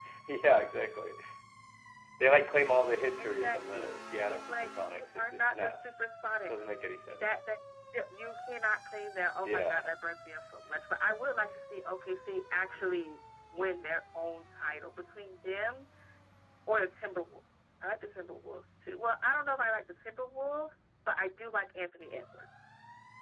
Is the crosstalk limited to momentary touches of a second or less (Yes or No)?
No